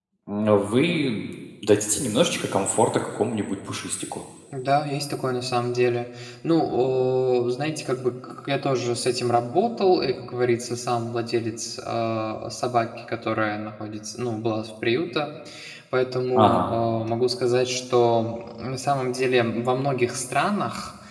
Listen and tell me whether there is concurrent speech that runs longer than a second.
No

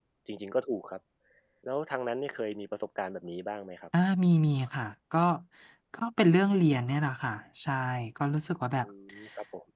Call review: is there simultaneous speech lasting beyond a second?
No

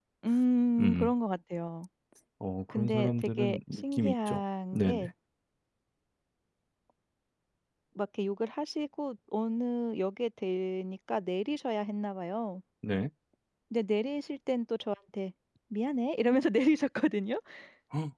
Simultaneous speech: Yes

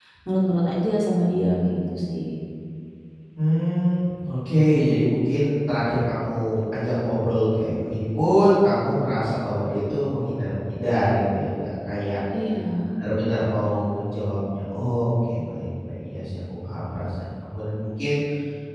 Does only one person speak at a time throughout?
Yes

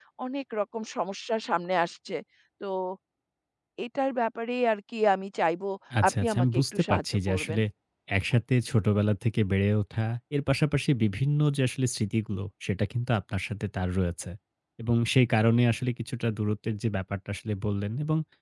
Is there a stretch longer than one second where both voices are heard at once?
Yes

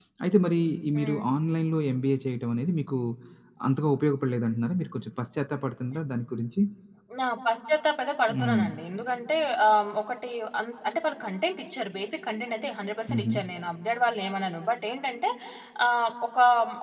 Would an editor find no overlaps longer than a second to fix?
Yes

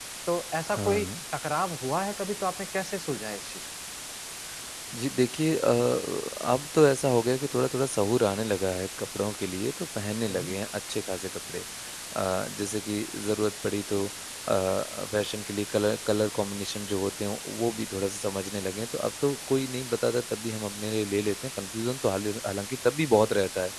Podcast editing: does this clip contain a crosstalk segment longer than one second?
No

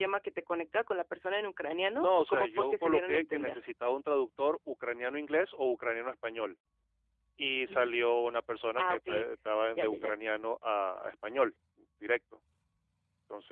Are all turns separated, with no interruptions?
No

